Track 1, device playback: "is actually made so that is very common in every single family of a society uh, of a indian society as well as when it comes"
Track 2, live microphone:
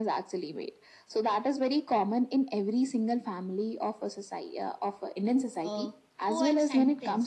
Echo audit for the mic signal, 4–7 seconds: both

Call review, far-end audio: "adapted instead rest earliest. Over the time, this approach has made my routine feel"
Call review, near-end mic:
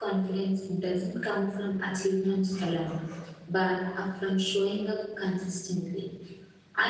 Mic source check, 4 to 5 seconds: user only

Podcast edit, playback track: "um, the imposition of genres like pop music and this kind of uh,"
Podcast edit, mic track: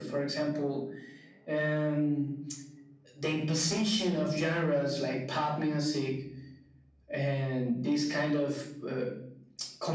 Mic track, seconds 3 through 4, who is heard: echo only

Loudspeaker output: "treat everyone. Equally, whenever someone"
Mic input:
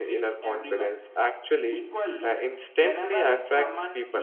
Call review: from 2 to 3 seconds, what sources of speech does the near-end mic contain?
both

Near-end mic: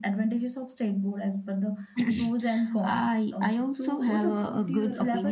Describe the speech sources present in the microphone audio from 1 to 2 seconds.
echo only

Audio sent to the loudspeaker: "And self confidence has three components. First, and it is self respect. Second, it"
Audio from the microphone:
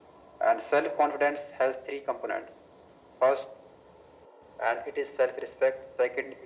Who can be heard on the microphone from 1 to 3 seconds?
echo only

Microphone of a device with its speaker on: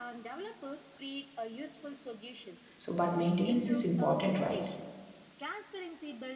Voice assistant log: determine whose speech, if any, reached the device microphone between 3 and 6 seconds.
both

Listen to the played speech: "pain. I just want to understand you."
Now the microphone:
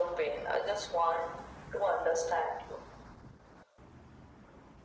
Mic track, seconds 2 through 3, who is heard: echo only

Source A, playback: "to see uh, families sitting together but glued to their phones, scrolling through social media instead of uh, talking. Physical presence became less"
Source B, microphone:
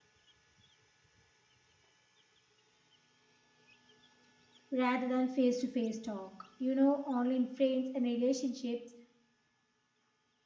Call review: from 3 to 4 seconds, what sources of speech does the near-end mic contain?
neither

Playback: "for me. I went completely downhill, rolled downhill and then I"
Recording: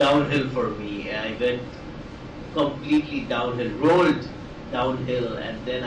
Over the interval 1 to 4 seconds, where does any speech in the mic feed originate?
echo only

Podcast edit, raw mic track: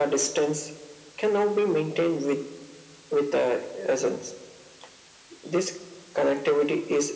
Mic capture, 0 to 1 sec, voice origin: echo only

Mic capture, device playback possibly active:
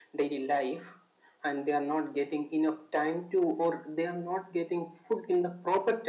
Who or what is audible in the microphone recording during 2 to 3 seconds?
echo only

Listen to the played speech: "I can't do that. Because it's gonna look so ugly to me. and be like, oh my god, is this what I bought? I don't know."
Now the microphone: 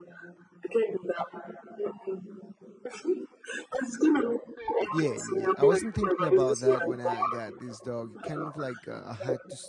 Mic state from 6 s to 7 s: both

